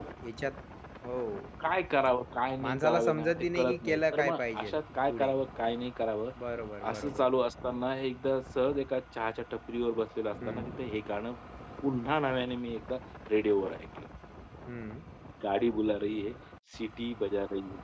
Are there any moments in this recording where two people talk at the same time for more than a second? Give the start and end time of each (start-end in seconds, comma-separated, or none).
2.6-4.7